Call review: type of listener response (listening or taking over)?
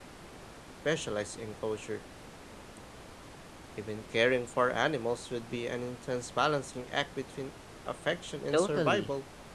taking over